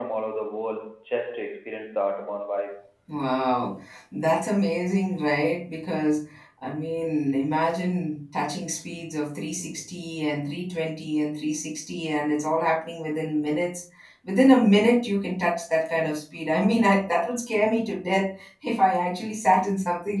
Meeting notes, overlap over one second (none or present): none